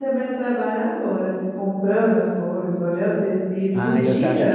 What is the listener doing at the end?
taking over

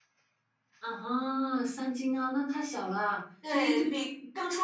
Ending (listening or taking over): taking over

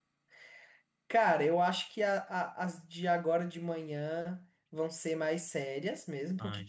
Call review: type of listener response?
listening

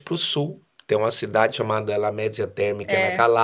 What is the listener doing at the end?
listening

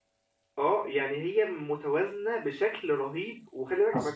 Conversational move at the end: taking over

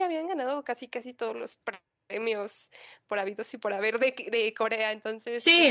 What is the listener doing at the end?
taking over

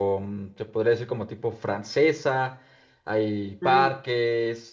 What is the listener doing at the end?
listening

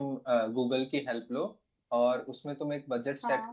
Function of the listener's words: listening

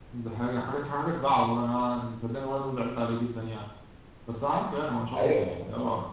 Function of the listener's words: listening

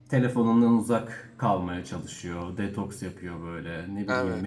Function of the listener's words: listening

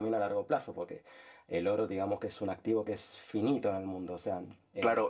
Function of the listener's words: taking over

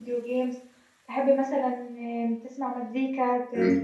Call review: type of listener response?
listening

